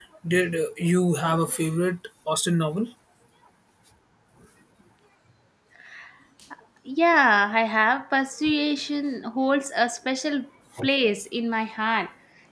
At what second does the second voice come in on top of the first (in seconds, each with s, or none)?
none